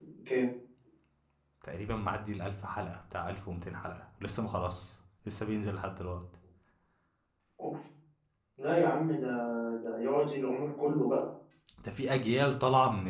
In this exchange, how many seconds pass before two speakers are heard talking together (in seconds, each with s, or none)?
none